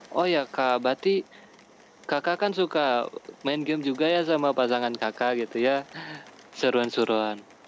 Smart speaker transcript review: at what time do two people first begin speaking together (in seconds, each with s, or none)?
none